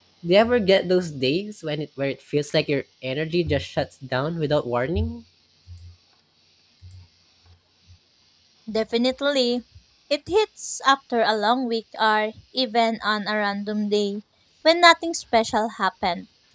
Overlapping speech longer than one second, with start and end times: none

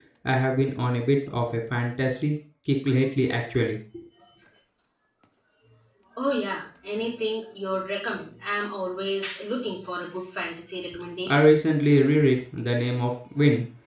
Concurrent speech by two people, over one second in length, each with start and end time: none

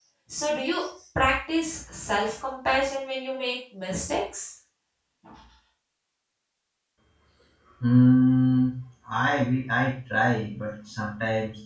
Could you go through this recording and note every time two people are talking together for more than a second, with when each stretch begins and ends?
none

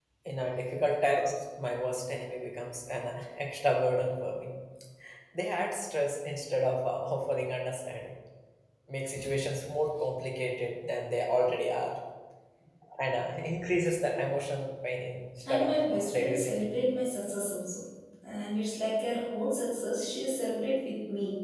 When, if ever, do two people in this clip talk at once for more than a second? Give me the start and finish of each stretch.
15.4-16.7

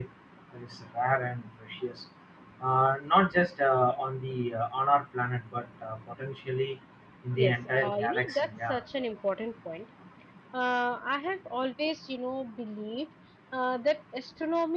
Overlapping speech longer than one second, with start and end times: 7.4-8.8

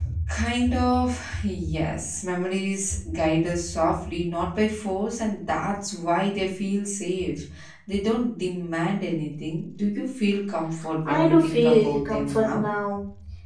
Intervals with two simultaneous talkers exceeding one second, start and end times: 11.1-12.7

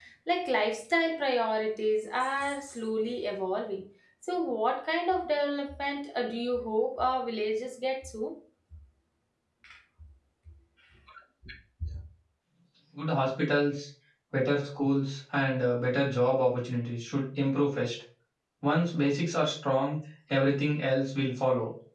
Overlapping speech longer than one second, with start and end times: none

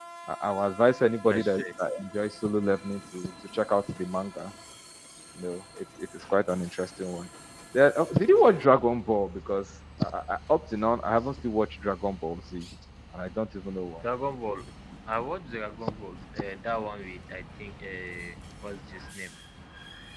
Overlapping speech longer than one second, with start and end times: none

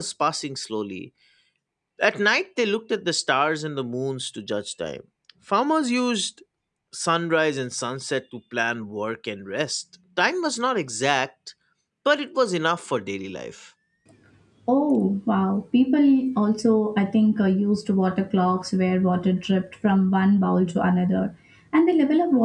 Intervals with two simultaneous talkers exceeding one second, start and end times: none

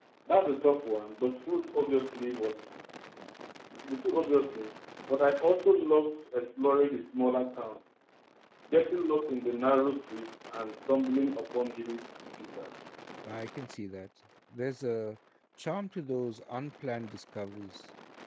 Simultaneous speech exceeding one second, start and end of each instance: none

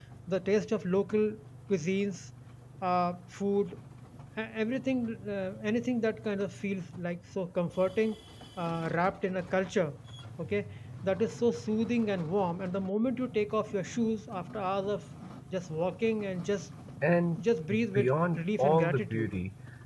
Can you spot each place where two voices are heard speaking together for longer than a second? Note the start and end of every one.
17.9-19.3

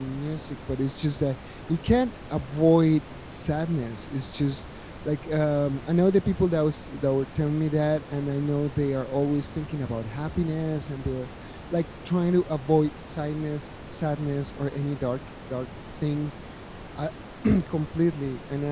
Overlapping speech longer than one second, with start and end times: none

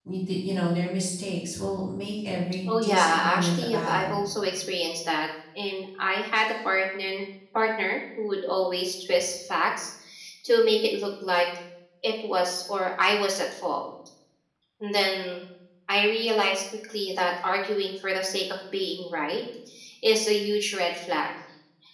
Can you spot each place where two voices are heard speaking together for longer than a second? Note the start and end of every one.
2.7-4.2

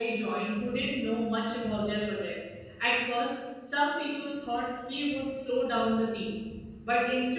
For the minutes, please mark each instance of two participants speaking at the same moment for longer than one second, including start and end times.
none

